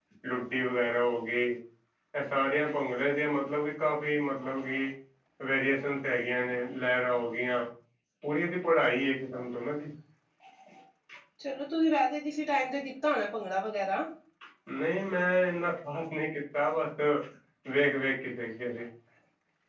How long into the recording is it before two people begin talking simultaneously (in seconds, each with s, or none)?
none